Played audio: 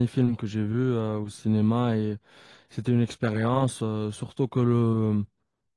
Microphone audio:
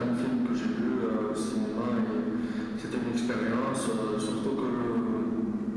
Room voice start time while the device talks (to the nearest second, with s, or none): none